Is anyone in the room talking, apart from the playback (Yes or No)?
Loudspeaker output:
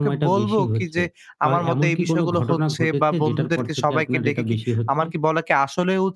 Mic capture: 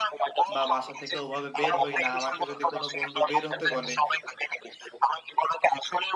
Yes